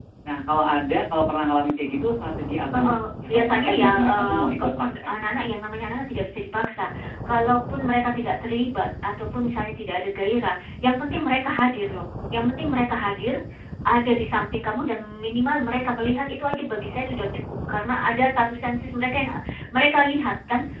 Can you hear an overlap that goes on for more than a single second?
Yes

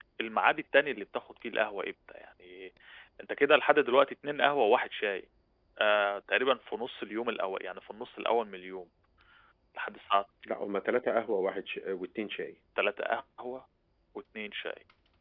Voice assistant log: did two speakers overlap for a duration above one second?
No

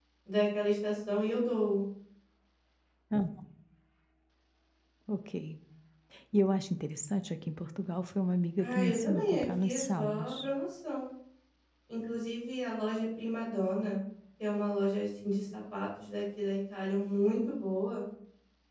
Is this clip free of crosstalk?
No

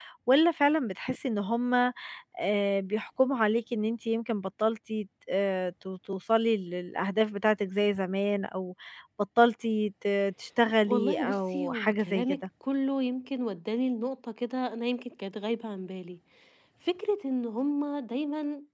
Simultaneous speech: Yes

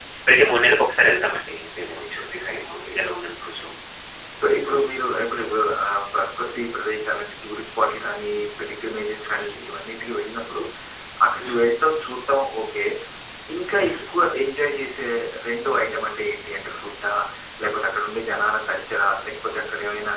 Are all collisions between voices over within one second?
No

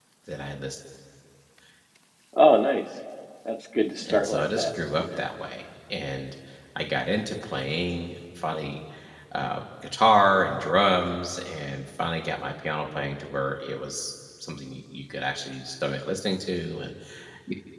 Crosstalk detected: Yes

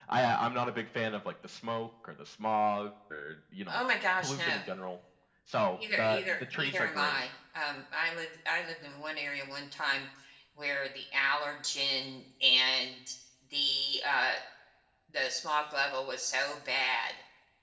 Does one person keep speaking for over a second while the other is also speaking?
Yes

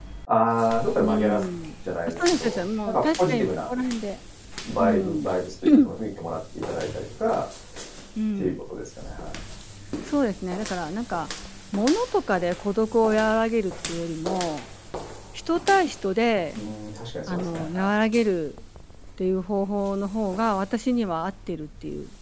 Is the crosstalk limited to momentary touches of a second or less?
No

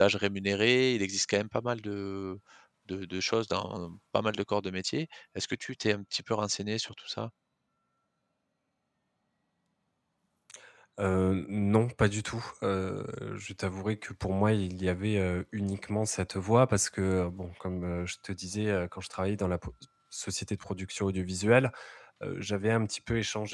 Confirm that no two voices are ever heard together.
Yes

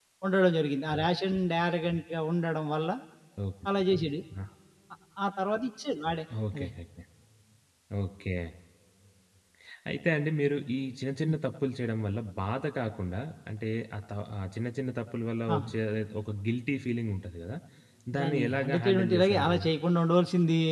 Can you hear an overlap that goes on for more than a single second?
Yes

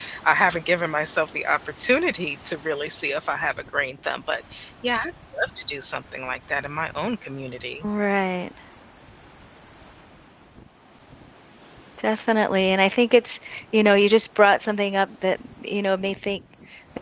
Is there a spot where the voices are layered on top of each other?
No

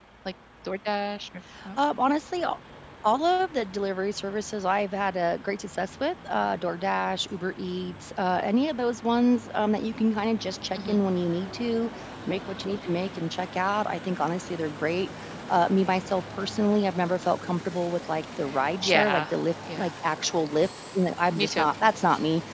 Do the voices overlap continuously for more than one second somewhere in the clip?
No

